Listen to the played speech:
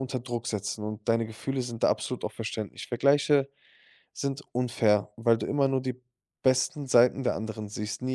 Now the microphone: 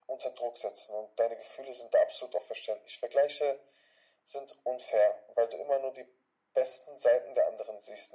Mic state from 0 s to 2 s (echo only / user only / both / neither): echo only